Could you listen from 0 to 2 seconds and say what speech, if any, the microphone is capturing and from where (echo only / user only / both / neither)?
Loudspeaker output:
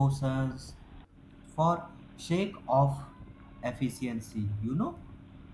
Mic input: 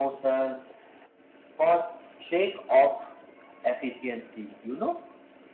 echo only